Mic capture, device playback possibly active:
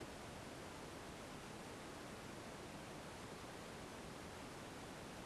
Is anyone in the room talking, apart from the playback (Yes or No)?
No